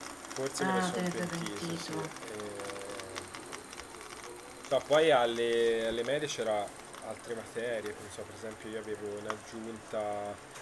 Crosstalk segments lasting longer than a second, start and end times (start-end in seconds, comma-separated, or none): 0.6-2.1